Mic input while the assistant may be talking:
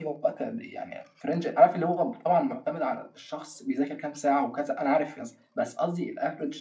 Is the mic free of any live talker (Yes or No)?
No